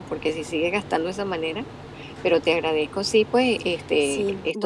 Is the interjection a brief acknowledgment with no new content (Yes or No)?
No